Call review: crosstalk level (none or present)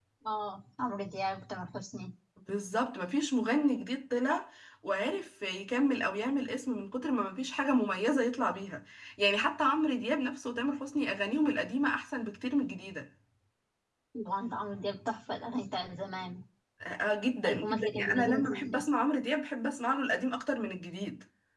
present